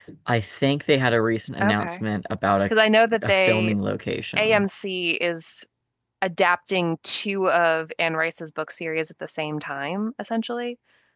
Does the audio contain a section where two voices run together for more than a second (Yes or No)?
No